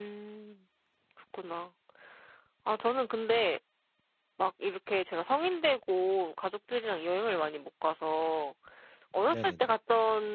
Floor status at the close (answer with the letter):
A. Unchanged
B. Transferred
A